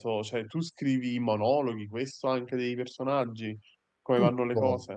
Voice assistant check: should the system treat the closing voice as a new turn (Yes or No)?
Yes